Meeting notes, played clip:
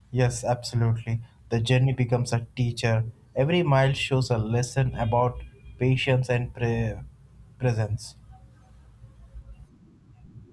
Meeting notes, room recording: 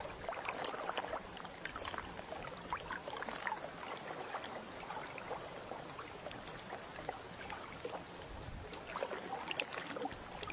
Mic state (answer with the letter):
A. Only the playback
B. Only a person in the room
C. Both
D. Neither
D